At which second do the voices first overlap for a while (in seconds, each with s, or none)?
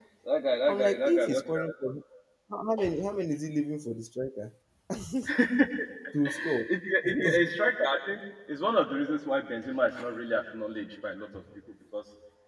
0.7 s